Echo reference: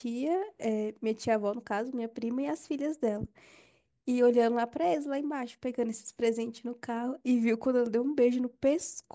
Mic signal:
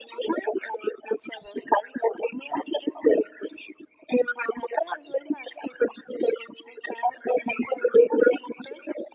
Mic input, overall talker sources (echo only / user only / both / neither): echo only